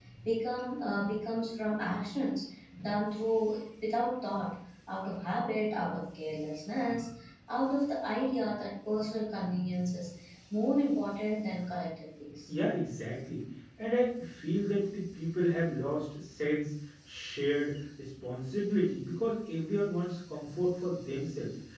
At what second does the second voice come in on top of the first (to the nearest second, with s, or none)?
none